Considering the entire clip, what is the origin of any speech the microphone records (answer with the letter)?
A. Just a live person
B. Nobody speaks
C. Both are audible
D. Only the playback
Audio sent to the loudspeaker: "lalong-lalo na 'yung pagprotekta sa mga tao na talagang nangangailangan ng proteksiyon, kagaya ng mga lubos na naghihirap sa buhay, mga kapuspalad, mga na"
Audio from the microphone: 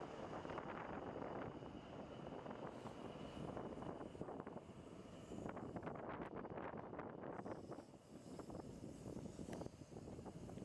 B